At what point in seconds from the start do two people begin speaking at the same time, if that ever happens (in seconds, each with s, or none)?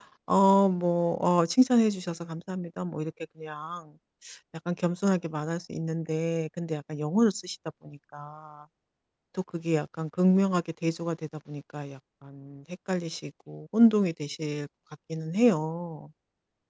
none